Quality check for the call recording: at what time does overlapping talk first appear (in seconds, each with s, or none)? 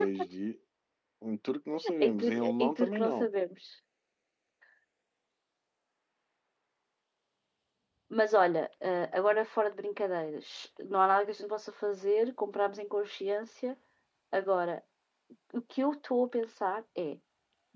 2.0 s